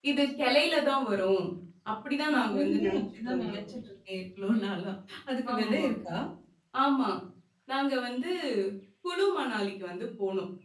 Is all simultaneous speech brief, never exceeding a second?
No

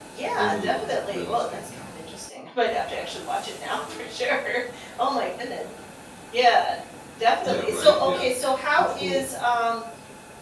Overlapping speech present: Yes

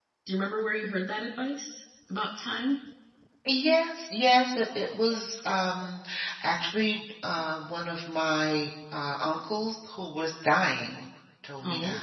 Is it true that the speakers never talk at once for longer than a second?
Yes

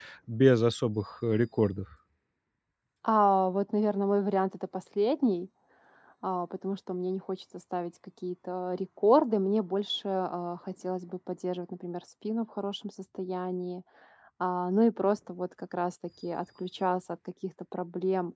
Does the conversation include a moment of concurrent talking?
No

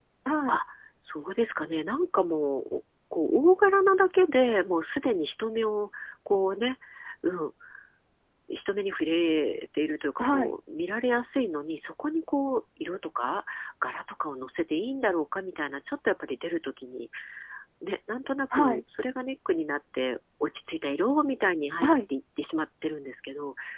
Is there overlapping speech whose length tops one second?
No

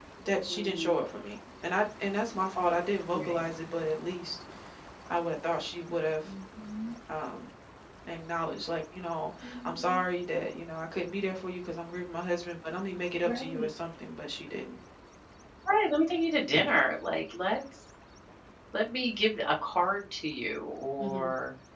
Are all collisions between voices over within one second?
Yes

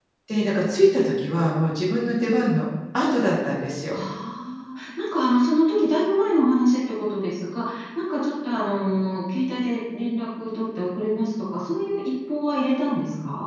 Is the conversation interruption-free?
Yes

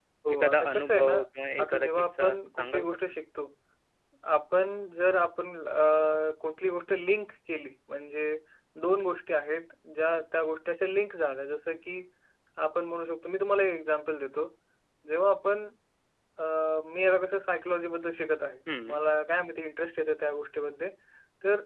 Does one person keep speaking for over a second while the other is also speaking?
Yes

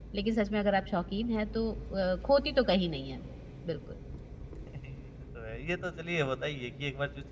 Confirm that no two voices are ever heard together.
Yes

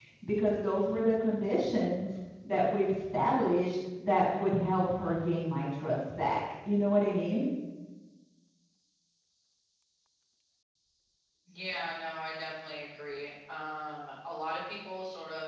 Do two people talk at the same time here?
No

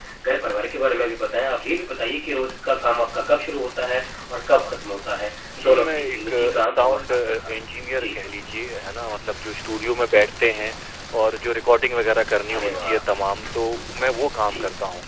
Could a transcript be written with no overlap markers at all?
No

